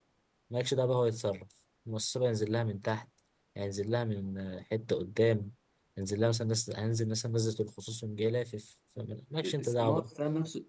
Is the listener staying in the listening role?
No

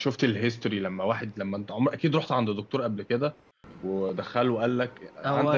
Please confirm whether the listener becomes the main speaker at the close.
Yes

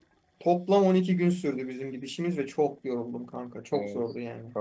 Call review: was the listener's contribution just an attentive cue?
No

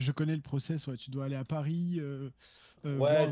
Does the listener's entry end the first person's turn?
Yes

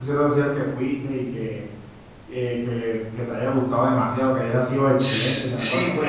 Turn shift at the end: Yes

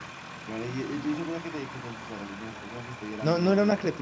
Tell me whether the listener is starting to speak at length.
Yes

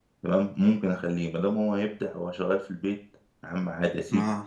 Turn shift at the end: No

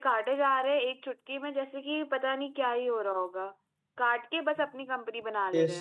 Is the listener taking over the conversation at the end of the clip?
Yes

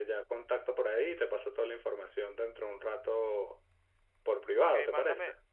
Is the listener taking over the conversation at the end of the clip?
Yes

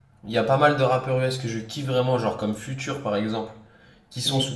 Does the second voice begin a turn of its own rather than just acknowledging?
No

